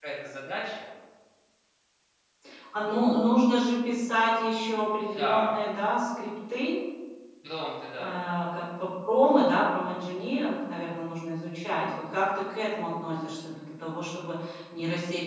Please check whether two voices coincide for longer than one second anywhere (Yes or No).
No